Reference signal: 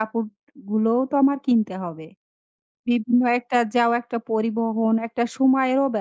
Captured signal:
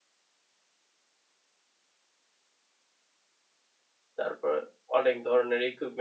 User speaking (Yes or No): Yes